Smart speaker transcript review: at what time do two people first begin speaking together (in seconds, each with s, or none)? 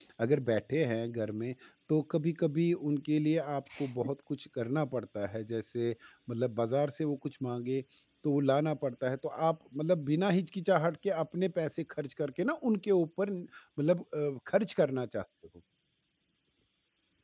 none